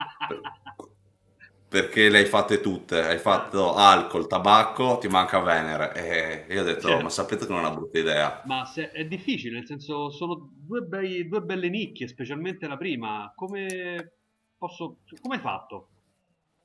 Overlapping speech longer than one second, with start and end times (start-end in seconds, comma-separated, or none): none